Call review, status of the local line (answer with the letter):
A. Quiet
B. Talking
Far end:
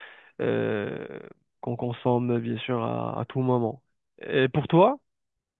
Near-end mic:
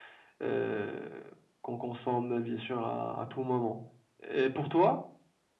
A